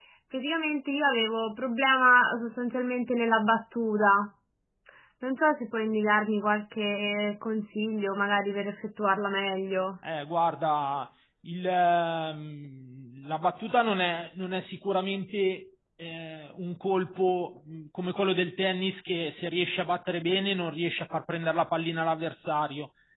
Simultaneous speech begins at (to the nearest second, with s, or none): none